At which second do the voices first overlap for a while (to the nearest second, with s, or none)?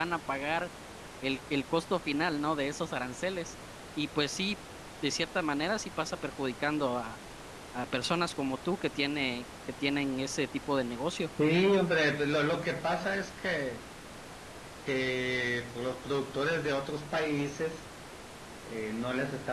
none